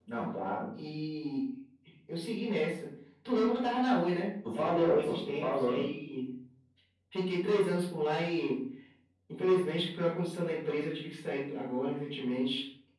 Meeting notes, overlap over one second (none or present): present